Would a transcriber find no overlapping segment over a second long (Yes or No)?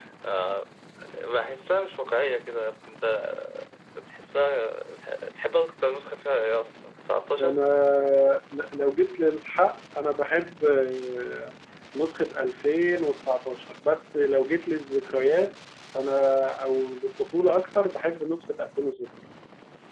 Yes